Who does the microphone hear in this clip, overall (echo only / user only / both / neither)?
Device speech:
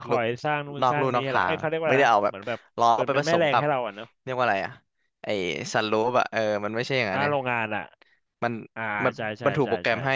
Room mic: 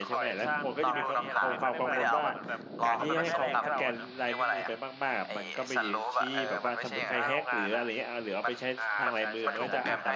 both